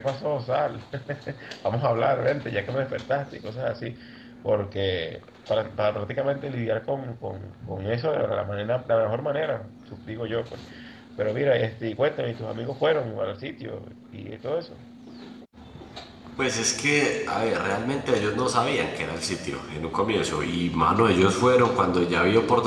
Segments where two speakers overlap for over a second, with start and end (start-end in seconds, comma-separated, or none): none